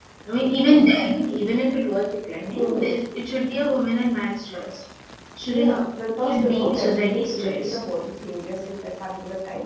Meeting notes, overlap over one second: present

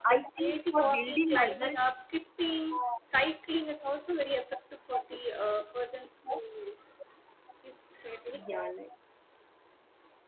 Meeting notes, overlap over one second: present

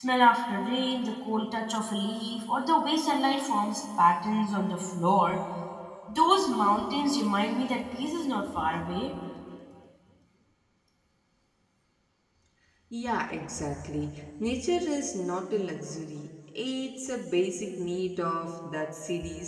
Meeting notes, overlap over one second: none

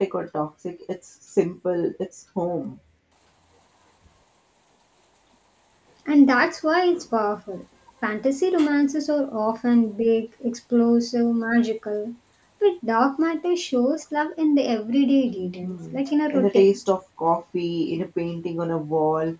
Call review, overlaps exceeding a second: present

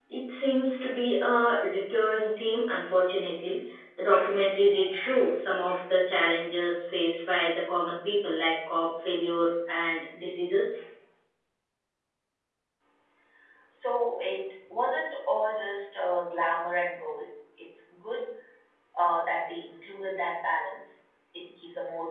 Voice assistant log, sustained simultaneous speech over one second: none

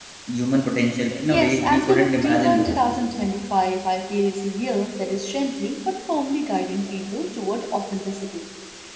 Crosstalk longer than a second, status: present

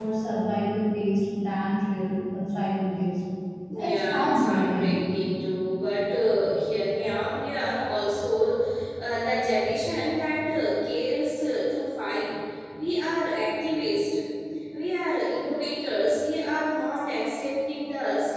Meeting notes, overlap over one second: present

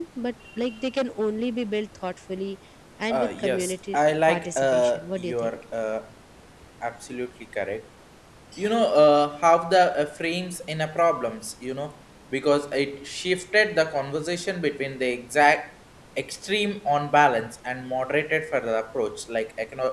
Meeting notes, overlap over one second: present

